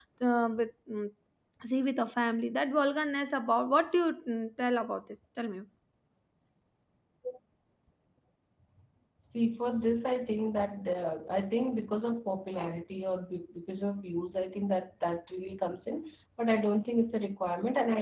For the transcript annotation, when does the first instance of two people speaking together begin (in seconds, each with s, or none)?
none